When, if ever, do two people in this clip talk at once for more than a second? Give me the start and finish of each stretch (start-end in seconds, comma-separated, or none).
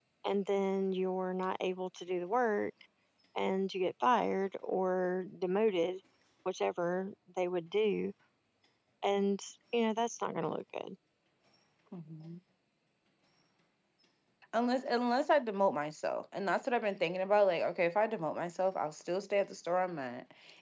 none